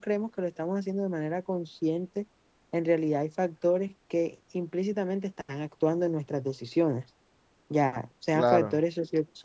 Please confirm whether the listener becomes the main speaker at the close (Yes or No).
No